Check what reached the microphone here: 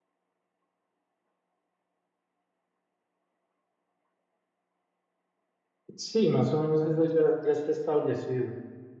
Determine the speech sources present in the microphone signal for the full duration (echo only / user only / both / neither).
user only